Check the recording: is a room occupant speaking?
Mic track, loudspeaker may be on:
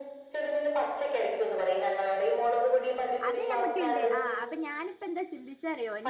Yes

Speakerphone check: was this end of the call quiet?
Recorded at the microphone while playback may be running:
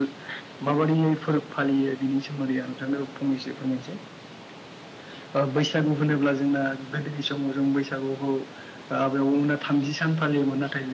Yes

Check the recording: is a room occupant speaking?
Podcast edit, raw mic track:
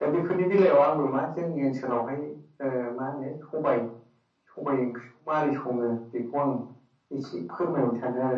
No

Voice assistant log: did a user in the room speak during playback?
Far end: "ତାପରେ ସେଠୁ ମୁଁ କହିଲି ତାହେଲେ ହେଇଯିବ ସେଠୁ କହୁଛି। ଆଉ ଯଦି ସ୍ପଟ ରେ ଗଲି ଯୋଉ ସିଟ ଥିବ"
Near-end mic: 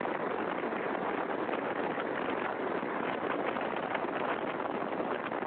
No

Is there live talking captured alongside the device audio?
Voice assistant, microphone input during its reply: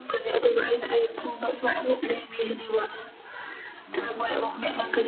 Yes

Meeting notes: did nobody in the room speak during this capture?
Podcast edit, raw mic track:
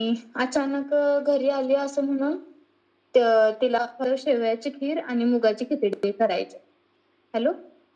Yes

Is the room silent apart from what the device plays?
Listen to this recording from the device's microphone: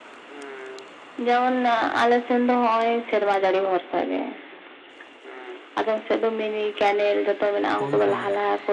No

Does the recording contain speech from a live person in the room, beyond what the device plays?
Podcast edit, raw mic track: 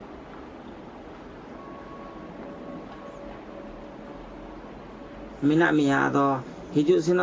Yes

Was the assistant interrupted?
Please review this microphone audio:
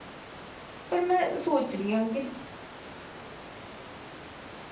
Yes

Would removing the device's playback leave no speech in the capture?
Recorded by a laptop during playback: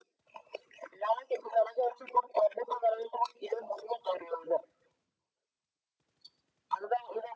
Yes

